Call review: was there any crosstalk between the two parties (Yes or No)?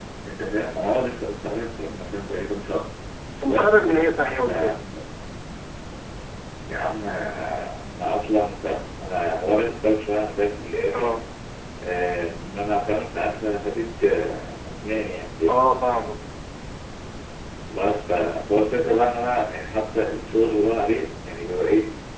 Yes